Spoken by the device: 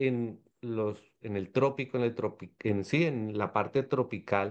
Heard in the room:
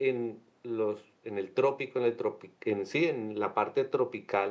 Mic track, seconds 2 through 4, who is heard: echo only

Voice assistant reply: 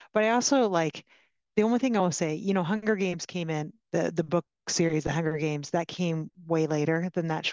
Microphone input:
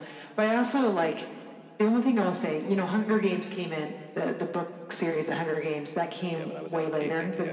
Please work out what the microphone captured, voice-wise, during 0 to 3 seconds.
echo only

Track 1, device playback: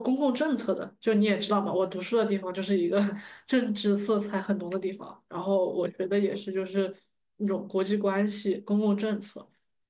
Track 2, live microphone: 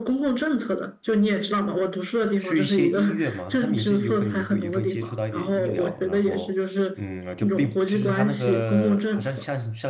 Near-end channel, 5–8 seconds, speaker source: both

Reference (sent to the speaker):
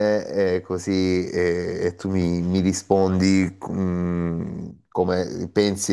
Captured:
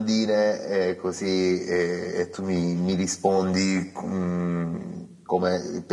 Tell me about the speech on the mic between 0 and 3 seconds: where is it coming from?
echo only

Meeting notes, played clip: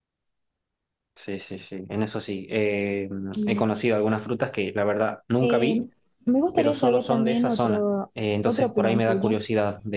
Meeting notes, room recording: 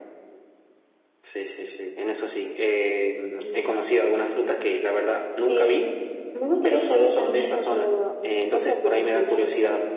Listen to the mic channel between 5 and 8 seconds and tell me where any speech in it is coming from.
echo only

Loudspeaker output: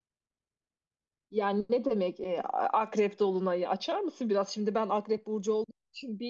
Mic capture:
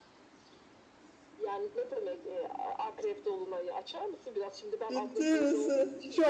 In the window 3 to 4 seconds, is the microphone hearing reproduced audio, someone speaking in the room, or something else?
echo only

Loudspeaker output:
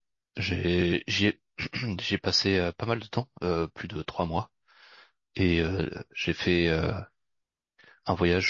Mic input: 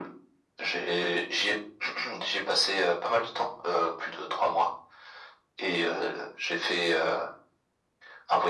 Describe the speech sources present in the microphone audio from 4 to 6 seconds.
echo only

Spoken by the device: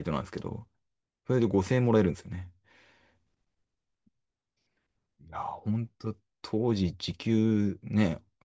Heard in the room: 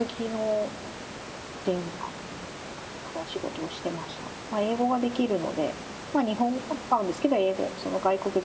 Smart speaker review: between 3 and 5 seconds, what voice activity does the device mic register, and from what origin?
user only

